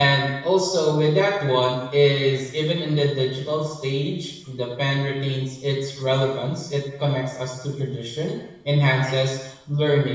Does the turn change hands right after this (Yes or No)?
No